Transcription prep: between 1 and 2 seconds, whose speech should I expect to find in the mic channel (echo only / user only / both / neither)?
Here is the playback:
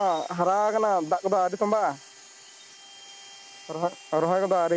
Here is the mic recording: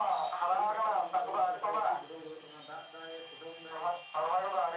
both